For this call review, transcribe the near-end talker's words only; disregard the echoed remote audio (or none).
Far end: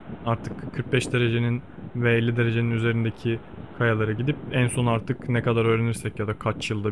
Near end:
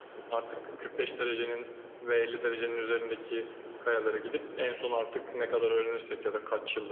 none